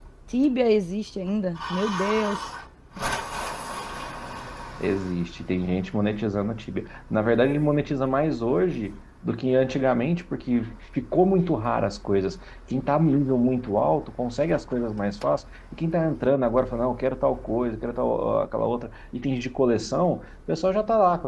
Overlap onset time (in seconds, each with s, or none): none